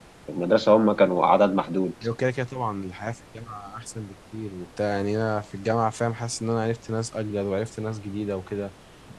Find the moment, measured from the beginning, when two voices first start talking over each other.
none

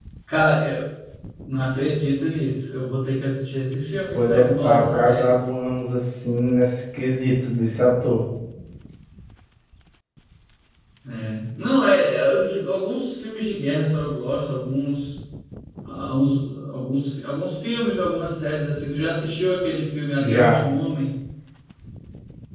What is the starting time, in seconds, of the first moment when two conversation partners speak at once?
4.1 s

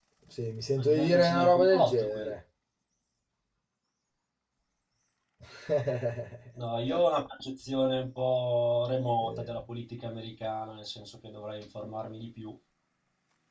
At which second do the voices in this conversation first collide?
0.8 s

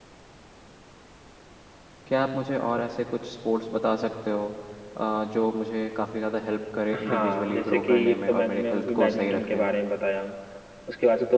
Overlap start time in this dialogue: 6.9 s

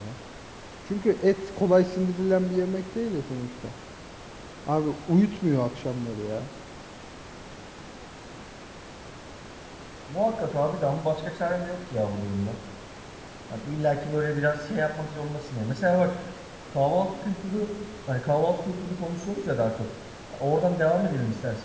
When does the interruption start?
none

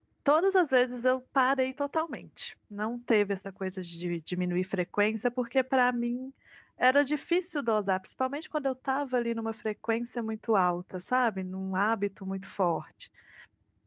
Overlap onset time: none

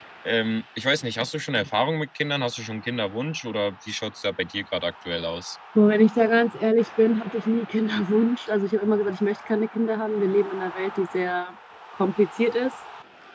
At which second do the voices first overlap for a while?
none

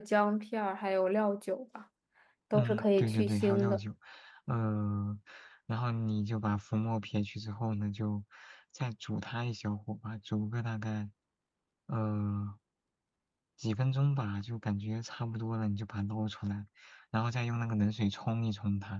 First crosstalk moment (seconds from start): 2.5 s

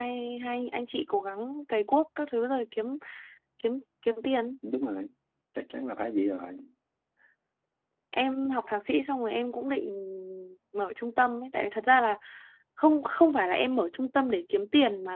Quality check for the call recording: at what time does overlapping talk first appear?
none

